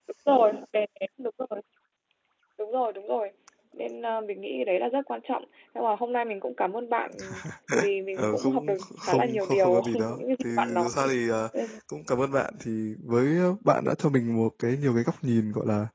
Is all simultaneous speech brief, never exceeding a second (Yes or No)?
No